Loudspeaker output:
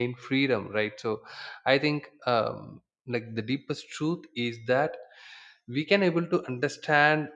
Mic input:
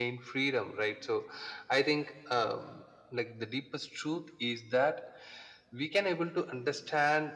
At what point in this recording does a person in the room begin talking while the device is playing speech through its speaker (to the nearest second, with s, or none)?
none